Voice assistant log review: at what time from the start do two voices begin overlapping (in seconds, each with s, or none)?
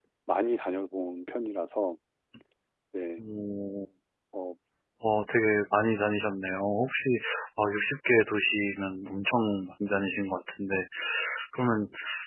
none